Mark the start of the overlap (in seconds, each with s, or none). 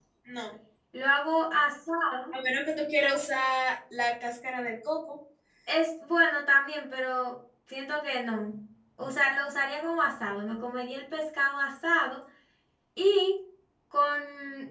none